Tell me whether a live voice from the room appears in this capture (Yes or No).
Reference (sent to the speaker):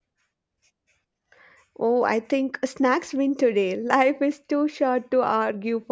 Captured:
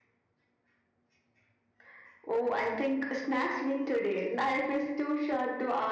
No